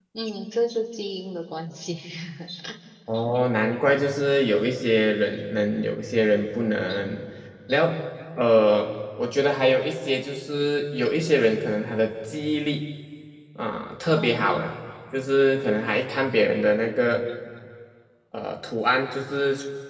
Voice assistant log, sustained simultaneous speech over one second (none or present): none